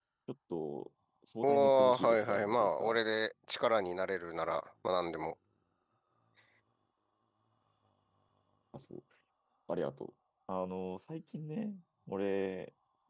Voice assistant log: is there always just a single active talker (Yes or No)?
No